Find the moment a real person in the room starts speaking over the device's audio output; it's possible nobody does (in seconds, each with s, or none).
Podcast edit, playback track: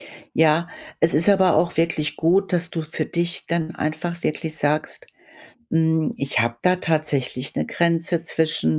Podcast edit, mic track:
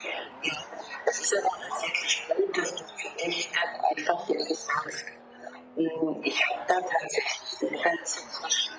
none